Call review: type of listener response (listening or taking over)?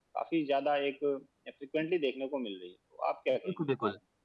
taking over